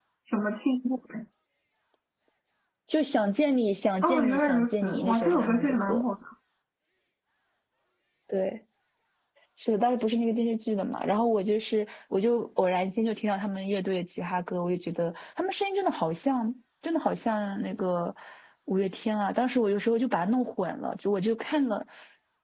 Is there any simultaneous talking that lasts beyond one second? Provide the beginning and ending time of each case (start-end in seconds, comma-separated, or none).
4.0-6.0